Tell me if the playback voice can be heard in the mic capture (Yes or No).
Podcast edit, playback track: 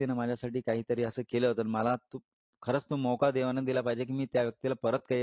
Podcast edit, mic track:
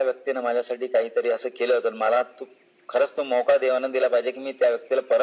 Yes